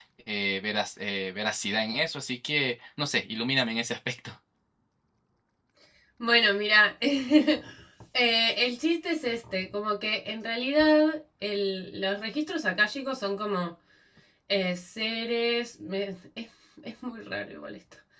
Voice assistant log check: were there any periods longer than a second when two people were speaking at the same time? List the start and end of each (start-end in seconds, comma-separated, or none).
none